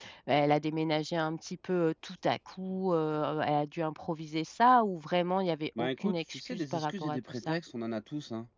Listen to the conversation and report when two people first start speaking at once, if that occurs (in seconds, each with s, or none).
5.8 s